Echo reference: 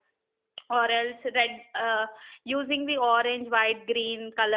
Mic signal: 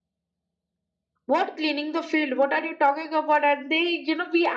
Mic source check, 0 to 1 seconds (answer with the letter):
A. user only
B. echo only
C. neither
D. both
C